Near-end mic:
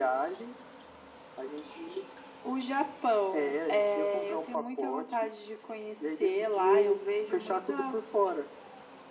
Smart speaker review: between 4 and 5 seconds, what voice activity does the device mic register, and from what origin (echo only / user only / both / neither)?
echo only